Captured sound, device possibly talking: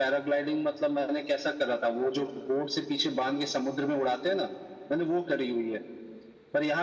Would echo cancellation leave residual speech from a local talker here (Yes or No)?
No